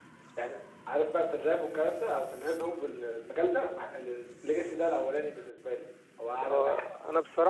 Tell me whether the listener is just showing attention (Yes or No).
No